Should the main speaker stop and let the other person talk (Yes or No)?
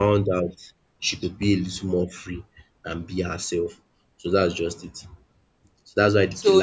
Yes